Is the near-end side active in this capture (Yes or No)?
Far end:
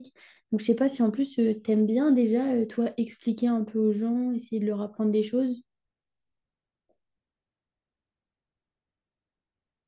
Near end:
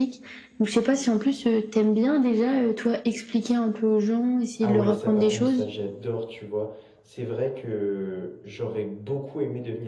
Yes